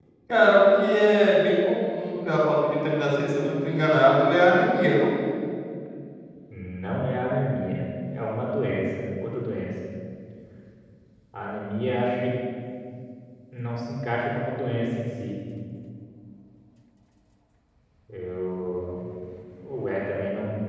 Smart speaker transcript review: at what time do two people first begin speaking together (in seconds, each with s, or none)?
none